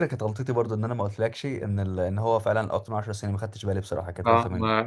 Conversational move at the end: taking over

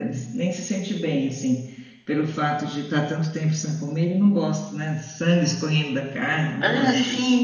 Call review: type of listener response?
taking over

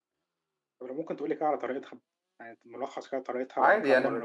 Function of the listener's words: taking over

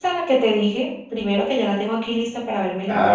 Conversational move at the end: listening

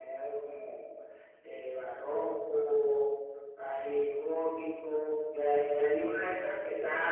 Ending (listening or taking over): listening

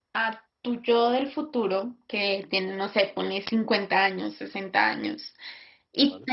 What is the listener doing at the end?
listening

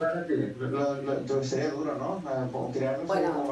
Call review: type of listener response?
taking over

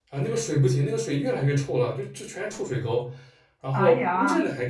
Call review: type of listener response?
listening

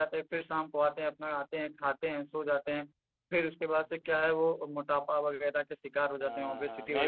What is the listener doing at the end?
taking over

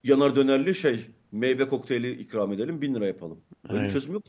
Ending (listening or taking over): listening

